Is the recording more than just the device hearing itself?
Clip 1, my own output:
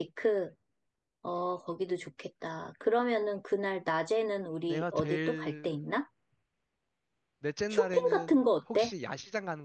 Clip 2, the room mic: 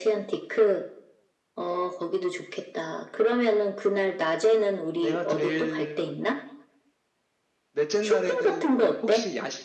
No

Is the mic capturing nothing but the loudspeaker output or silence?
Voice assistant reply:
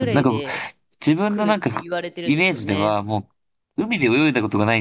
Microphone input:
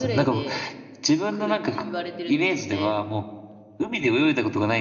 Yes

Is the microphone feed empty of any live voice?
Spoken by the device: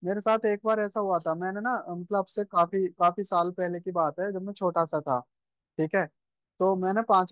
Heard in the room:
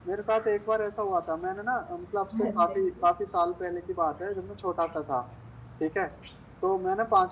No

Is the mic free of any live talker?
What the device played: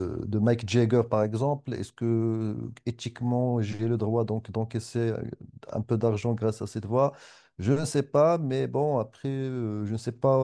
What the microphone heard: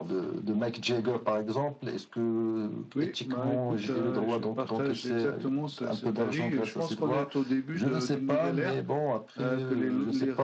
No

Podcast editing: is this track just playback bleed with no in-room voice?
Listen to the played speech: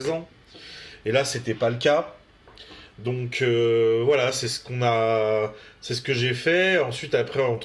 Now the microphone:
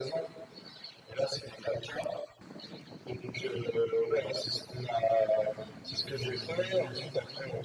Yes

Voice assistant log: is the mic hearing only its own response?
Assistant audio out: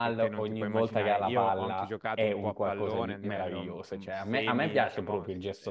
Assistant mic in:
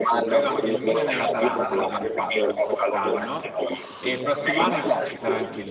No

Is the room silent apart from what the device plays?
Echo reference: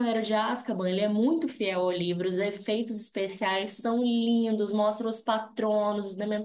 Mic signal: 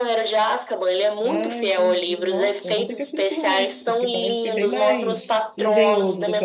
No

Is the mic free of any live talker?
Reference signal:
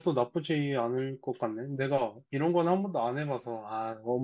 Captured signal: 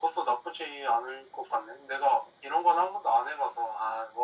Yes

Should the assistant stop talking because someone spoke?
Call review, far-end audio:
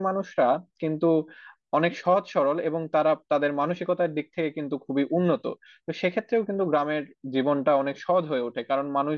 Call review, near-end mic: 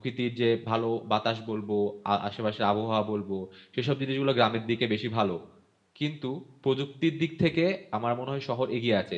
Yes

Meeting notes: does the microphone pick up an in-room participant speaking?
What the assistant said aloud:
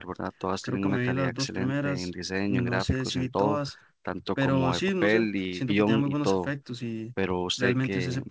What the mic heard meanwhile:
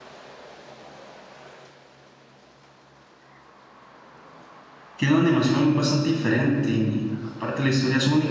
Yes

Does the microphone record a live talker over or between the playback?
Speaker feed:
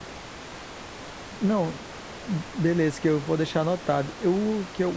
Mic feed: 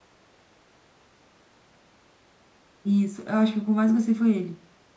Yes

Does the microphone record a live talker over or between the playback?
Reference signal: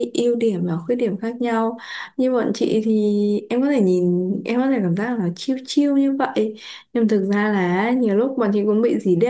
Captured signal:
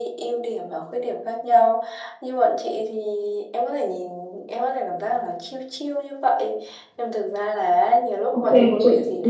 Yes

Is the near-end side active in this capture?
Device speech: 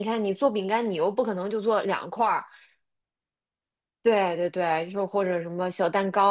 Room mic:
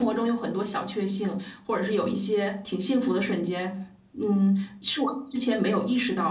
Yes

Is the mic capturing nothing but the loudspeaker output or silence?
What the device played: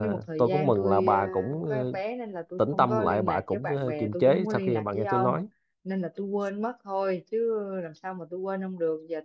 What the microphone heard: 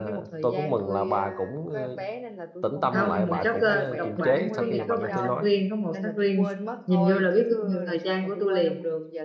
No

